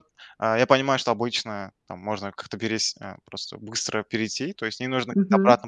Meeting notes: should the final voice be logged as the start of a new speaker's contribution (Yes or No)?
No